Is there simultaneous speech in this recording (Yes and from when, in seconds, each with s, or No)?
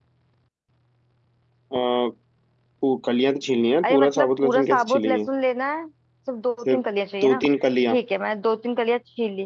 Yes, from 3.8 s